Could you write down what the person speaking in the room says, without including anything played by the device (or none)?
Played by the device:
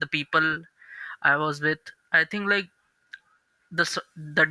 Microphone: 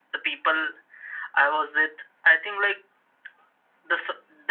none